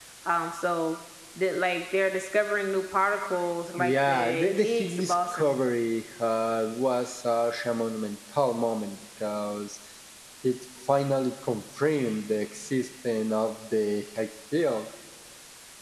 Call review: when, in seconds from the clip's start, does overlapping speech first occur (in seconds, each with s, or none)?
3.8 s